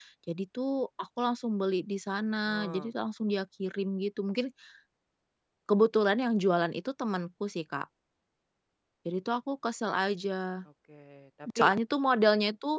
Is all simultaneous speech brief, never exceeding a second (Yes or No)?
Yes